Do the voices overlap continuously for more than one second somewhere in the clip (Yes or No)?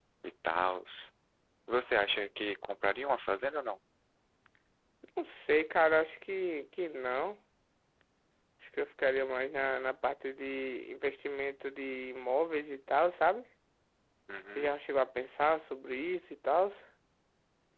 No